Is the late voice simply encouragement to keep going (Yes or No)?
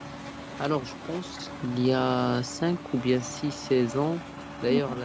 Yes